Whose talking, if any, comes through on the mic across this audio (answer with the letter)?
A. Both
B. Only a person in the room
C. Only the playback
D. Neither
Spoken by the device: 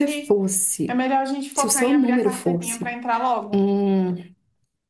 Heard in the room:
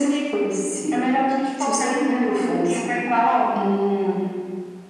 C